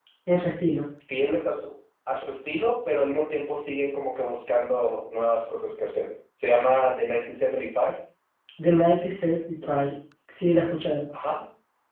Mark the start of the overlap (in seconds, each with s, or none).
none